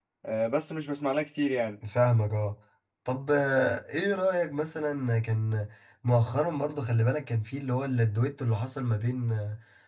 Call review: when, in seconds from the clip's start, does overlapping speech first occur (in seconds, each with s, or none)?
none